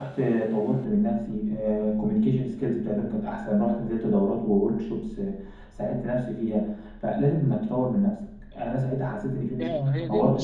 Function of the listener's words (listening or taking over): taking over